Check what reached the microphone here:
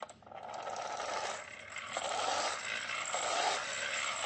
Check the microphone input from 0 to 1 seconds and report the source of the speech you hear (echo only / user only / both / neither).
neither